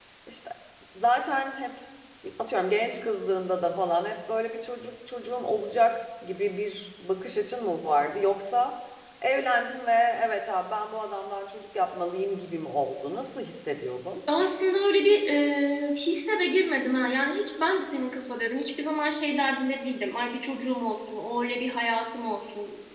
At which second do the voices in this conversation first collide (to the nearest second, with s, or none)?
none